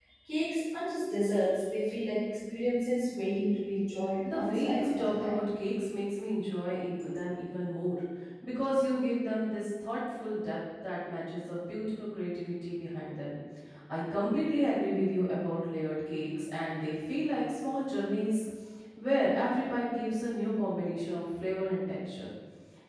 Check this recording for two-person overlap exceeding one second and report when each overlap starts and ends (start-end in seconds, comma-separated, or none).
4.2-5.5